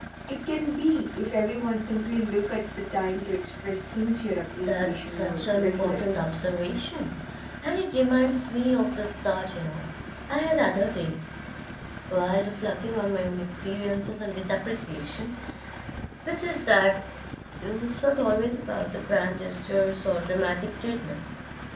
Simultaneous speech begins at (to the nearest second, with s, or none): 5 s